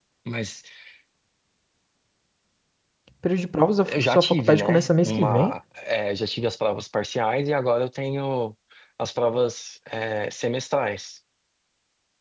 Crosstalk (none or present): present